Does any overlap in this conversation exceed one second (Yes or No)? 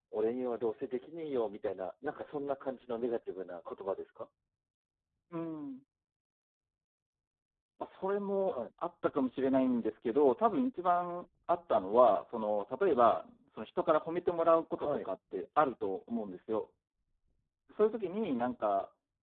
No